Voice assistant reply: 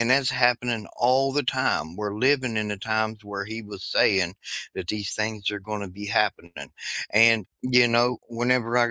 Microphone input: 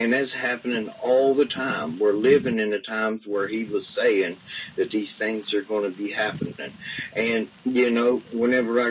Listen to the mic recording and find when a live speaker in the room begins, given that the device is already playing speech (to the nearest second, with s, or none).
none